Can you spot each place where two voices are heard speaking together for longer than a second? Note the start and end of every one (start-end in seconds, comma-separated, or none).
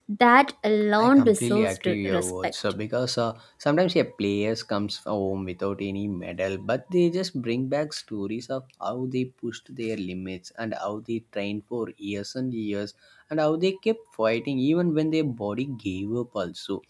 1.0-2.5